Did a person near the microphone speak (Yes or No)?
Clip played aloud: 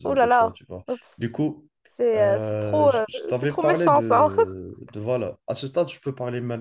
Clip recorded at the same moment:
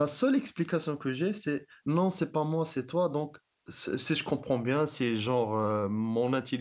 Yes